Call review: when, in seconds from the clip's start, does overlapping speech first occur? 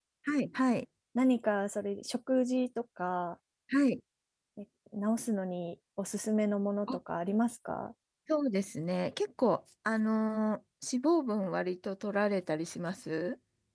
none

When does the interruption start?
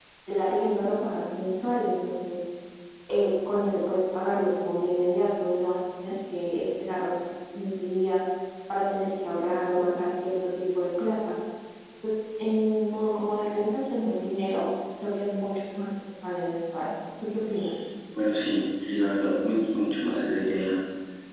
none

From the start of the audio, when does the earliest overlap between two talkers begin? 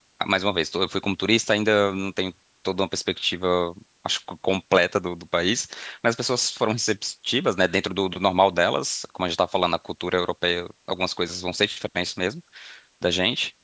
none

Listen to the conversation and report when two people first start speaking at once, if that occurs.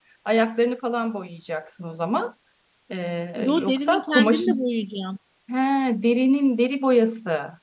3 s

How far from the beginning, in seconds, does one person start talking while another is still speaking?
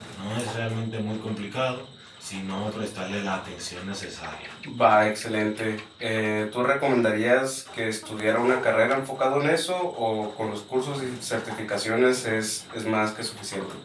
none

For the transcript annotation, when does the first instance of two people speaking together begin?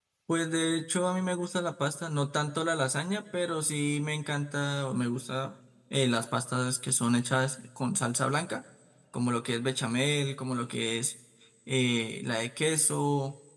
none

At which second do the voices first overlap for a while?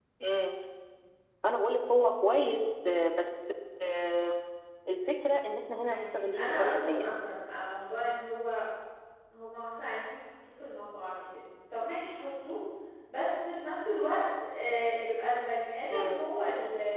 6 s

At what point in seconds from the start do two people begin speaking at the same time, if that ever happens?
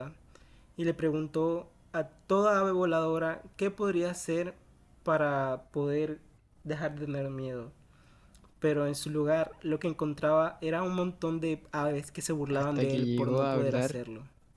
13 s

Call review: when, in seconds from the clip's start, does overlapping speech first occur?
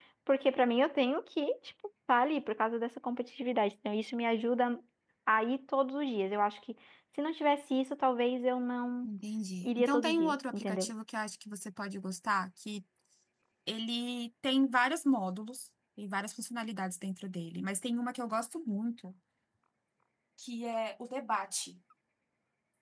10 s

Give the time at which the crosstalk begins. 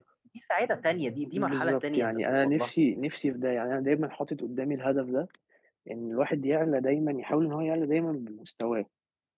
1 s

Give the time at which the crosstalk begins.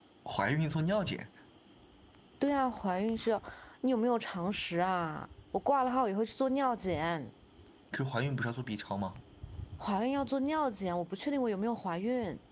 none

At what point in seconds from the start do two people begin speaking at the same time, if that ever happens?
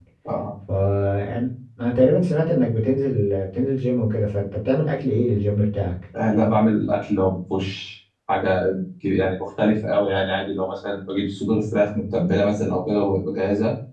none

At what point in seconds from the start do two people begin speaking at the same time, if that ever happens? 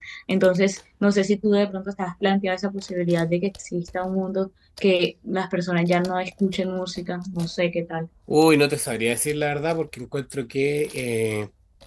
none

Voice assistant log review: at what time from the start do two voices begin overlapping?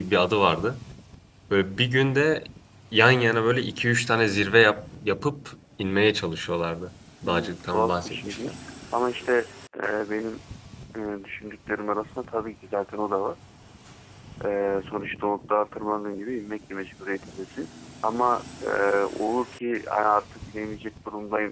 7 s

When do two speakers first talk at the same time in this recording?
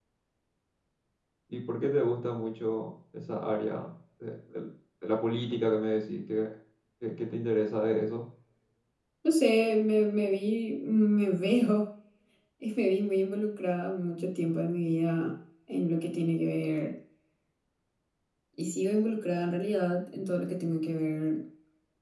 none

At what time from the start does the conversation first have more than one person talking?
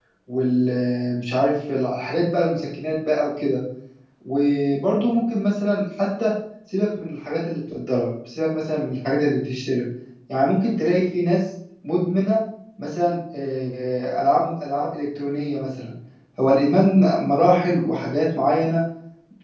none

